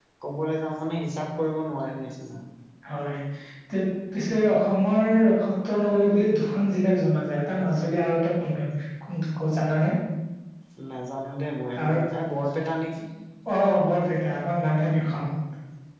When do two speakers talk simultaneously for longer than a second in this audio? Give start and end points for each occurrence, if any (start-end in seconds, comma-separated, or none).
none